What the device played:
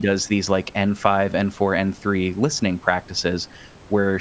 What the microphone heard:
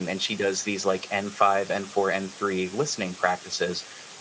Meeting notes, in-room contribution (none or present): none